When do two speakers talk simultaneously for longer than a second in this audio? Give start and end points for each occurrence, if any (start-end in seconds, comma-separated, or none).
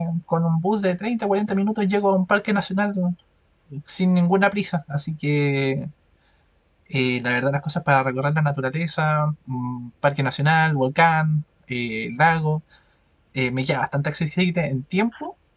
none